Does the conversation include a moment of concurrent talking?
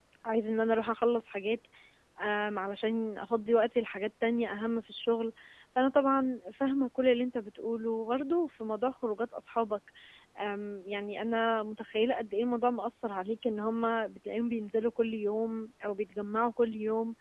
No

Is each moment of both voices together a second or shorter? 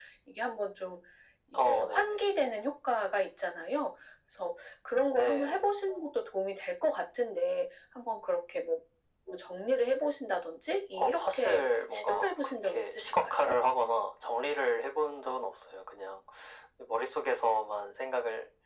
No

